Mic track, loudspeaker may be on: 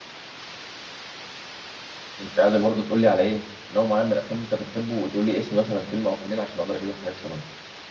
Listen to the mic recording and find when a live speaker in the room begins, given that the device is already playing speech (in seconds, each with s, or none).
2.2 s